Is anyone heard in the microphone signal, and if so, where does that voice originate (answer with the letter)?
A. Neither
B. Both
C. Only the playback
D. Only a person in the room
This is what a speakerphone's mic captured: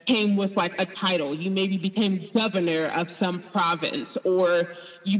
C